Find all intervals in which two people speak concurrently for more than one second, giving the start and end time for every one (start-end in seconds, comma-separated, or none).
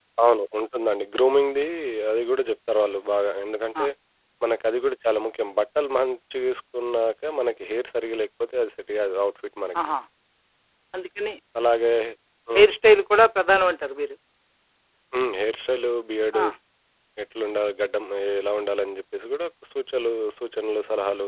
none